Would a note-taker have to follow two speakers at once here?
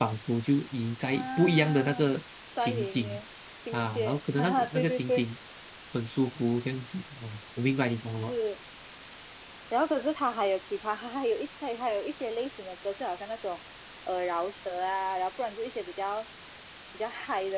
Yes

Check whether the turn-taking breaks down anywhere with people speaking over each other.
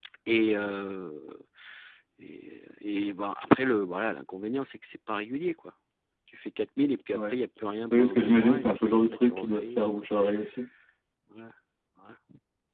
Yes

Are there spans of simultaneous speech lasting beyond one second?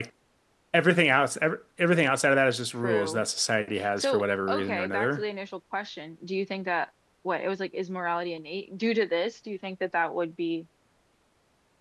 Yes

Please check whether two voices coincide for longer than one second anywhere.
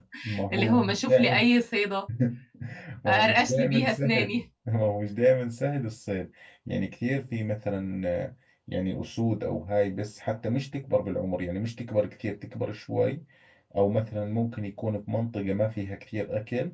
Yes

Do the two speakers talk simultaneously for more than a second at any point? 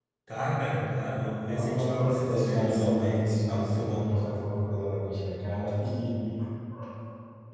Yes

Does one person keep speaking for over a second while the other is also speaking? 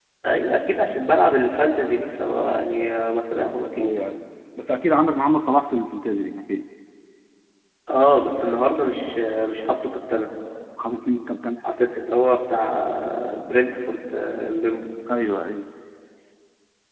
No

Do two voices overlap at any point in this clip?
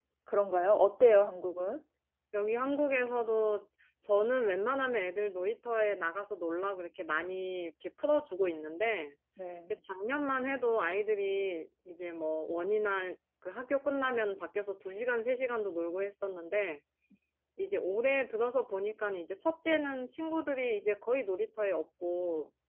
No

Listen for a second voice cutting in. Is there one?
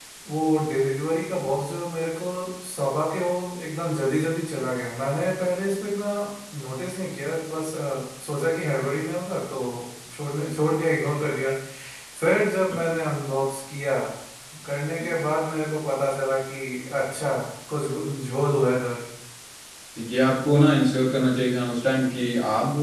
No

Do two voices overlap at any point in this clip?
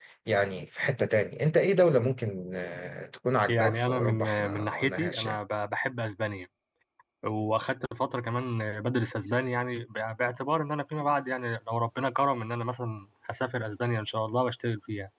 Yes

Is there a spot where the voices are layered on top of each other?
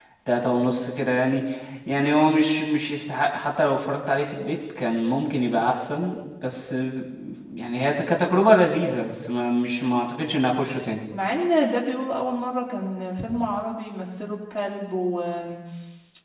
No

